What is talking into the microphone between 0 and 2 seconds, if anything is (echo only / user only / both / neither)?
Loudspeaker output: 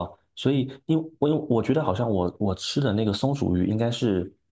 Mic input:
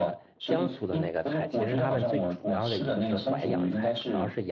both